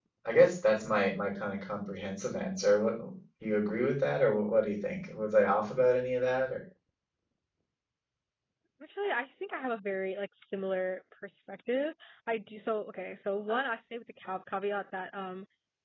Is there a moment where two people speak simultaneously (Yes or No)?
No